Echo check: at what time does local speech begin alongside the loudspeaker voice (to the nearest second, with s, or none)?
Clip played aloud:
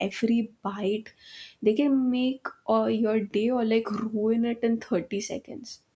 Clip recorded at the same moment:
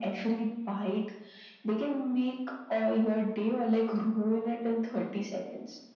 none